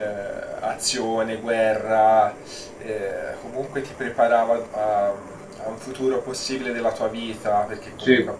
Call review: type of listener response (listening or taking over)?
listening